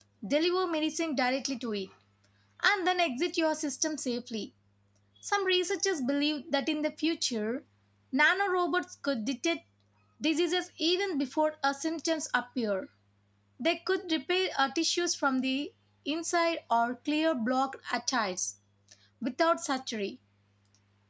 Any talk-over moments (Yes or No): No